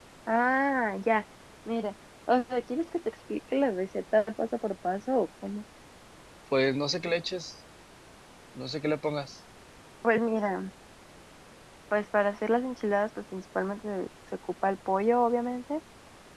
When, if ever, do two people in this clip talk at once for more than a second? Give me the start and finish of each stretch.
none

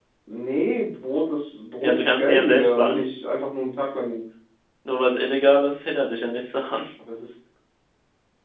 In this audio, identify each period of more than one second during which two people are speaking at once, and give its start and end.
1.8-3.0

